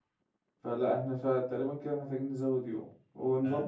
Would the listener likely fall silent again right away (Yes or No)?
Yes